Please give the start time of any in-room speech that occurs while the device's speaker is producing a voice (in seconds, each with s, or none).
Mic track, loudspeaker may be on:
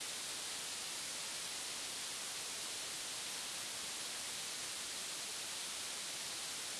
none